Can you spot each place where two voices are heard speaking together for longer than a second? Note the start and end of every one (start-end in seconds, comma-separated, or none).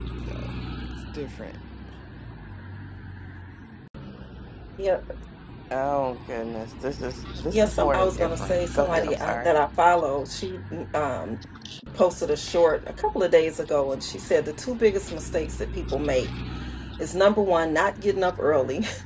7.5-9.5